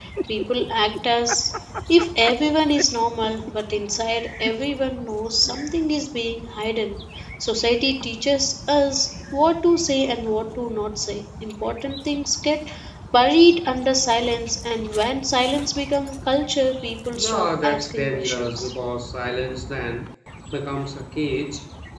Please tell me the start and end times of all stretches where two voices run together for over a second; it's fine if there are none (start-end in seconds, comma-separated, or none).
17.2-18.7